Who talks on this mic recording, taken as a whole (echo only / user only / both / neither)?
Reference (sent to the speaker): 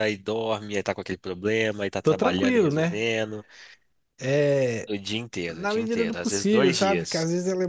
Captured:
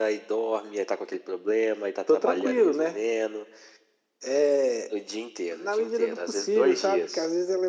echo only